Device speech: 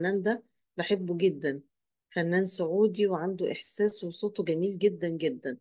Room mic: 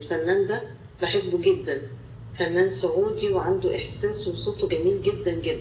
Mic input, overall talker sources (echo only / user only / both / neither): echo only